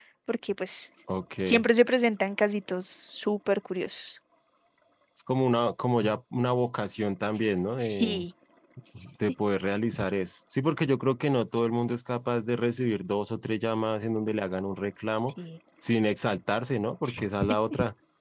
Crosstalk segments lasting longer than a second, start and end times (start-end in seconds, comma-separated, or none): none